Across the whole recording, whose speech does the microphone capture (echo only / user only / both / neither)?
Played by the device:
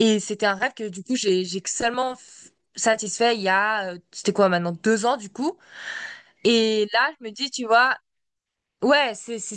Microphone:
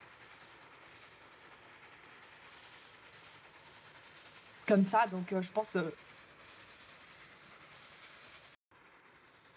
user only